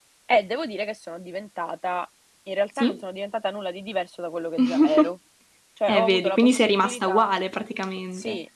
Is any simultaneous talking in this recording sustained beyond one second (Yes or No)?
Yes